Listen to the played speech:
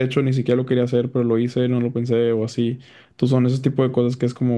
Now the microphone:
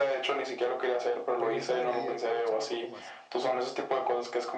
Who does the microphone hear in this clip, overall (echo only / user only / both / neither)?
both